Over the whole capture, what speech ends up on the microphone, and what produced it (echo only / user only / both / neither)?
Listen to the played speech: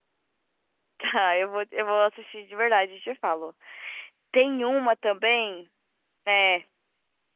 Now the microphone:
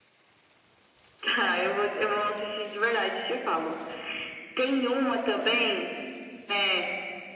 echo only